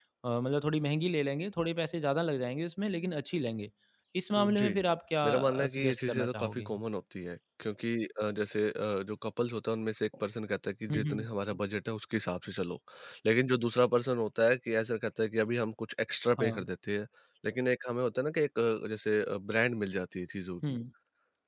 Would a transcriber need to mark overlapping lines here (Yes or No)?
Yes